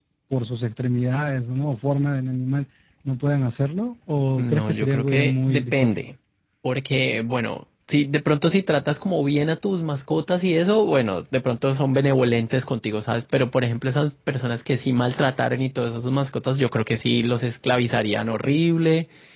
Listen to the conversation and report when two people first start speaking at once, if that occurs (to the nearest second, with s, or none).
4 s